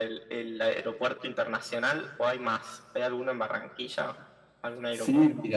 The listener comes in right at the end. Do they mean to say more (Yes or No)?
Yes